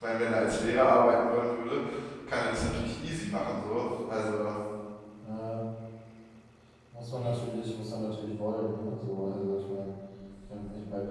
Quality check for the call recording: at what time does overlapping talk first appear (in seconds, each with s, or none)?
none